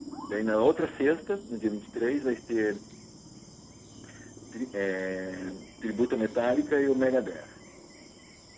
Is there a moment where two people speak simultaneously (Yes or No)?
No